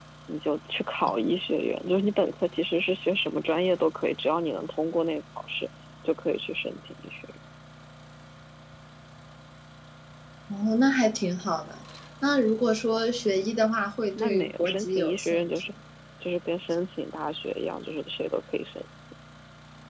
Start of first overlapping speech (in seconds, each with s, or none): 14.2 s